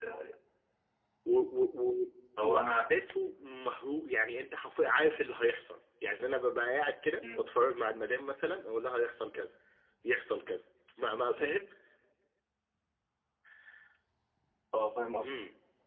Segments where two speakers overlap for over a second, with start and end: none

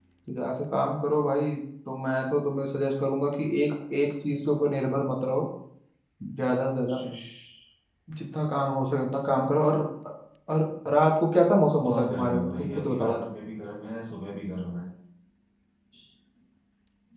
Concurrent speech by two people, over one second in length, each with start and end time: 11.8-13.2

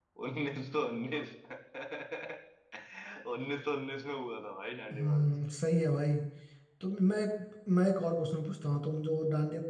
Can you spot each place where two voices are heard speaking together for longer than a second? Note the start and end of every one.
none

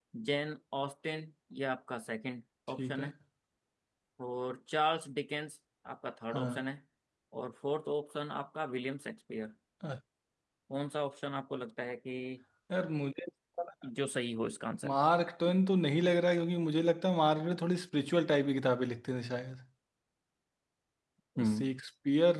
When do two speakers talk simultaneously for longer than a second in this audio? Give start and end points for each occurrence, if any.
none

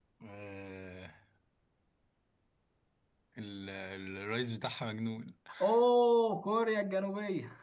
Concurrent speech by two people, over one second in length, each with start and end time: none

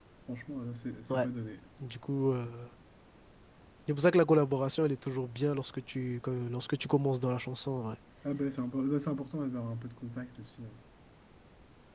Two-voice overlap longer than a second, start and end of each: none

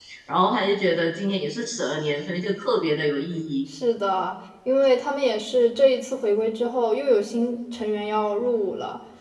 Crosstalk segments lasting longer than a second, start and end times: none

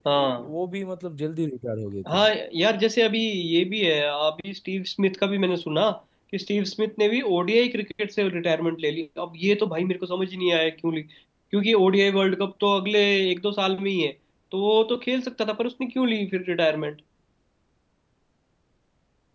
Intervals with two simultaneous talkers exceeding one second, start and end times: none

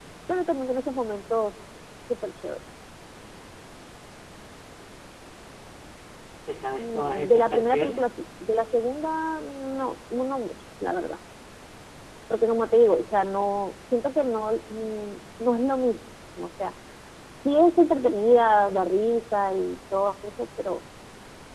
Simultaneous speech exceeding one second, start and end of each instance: 6.8-8.0

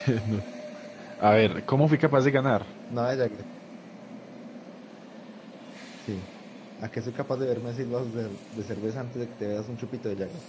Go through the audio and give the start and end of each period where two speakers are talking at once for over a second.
none

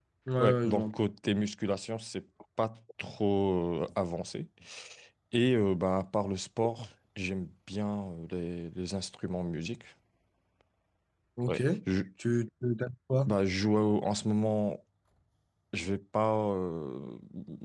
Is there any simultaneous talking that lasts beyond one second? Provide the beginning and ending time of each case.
none

